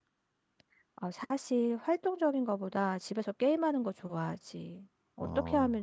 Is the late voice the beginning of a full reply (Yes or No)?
No